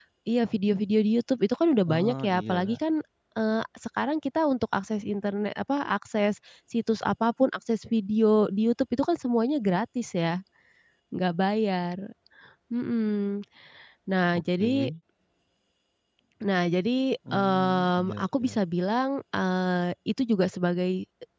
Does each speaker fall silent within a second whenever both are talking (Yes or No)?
No